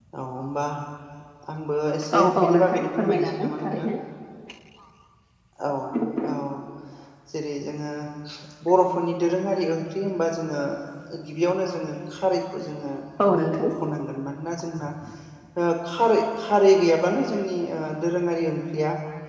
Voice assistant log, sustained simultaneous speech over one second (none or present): present